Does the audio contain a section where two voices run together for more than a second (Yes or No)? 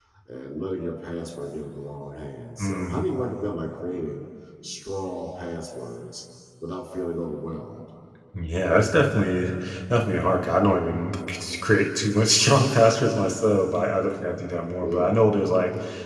No